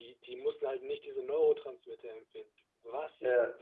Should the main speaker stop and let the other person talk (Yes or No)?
No